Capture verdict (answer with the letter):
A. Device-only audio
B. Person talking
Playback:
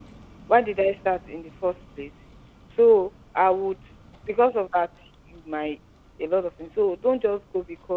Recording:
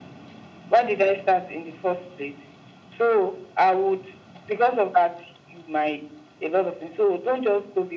A